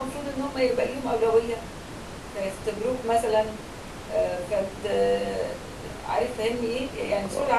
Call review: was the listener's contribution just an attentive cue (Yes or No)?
Yes